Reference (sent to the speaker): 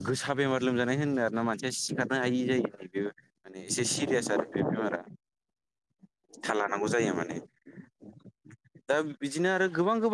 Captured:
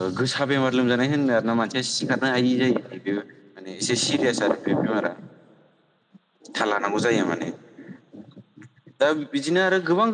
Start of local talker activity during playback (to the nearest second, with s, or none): none